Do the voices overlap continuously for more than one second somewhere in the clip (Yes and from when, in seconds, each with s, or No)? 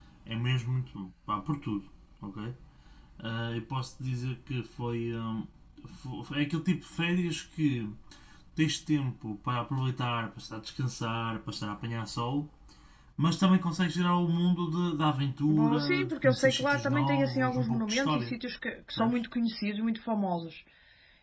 Yes, from 15.5 s